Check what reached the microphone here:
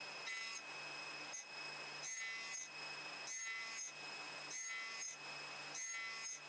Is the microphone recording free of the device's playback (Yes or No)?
Yes